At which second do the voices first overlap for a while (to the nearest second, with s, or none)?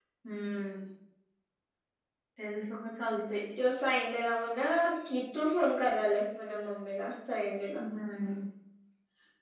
none